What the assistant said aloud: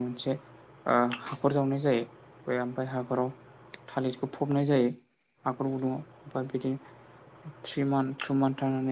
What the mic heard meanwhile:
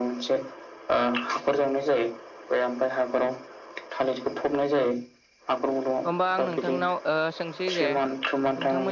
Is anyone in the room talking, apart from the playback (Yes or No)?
Yes